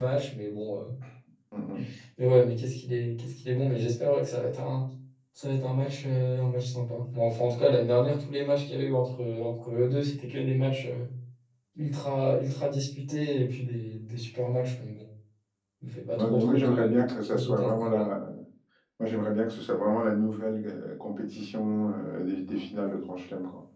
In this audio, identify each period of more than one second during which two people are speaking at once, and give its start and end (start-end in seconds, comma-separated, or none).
16.1-18.0